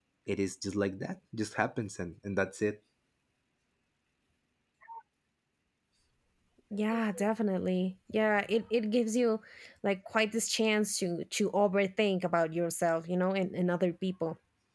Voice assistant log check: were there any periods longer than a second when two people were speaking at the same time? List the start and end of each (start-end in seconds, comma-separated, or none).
none